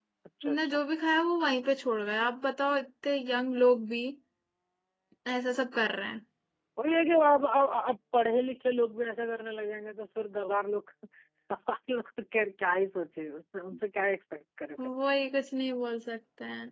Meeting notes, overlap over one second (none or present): none